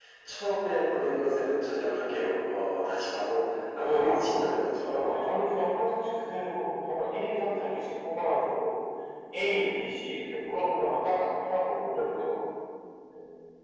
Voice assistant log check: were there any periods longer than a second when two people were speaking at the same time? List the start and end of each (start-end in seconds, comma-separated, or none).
3.8-5.1